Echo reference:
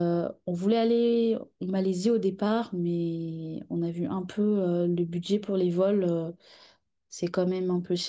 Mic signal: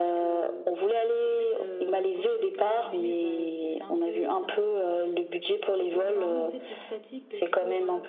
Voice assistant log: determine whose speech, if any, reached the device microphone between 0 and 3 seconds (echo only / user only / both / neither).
both